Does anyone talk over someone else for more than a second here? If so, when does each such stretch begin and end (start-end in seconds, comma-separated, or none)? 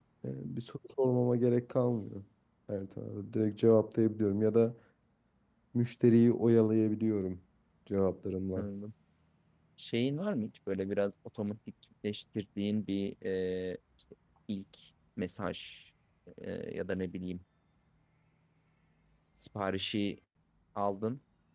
none